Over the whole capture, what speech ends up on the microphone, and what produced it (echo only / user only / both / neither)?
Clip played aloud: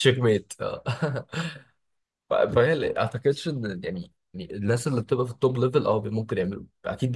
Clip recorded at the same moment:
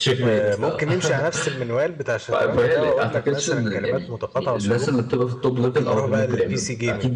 both